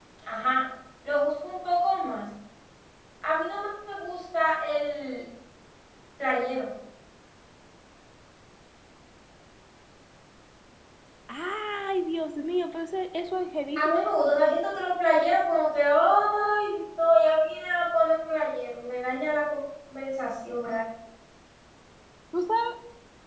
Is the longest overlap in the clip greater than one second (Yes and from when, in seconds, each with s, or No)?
No